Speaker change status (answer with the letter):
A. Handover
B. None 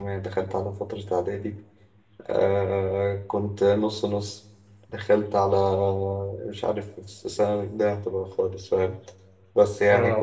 B